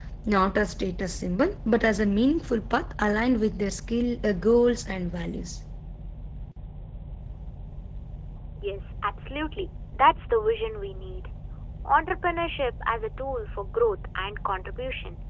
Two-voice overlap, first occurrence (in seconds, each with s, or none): none